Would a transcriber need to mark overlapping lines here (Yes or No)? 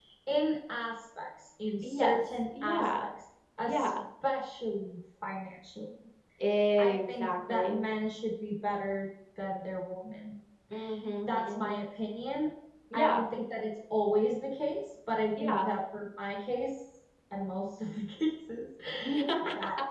Yes